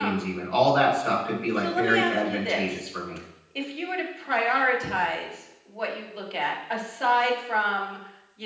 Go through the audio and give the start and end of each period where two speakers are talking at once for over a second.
1.5-2.9

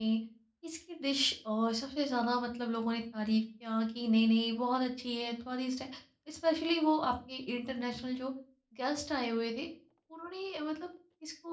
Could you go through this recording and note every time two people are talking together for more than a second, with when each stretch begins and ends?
none

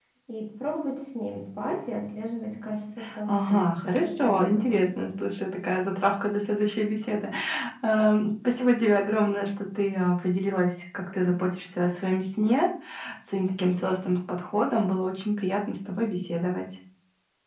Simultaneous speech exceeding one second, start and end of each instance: 3.3-5.1

